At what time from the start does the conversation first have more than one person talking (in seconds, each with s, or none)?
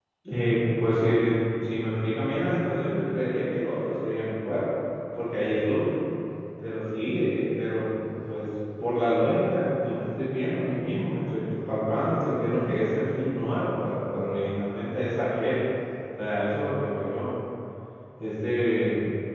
none